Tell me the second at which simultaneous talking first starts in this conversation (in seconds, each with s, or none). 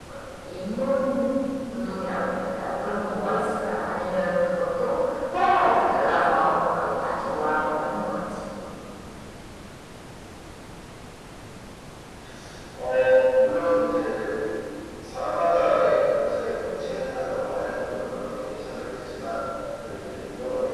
none